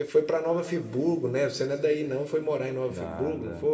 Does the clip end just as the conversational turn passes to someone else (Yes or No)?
Yes